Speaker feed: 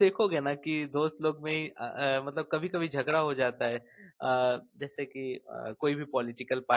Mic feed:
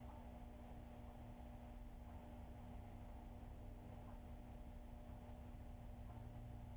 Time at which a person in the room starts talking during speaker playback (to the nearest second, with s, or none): none